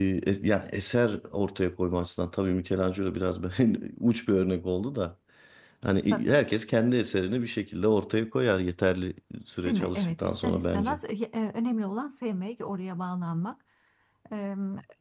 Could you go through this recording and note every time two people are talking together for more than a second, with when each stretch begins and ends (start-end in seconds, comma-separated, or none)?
9.6-11.0